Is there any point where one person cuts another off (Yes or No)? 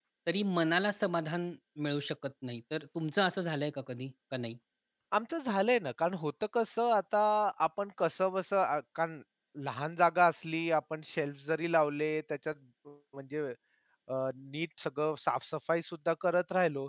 No